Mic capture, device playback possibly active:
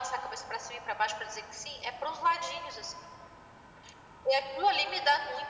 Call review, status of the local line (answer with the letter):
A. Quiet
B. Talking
A